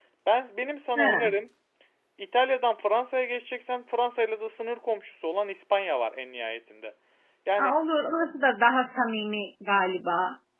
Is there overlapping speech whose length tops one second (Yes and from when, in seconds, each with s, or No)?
No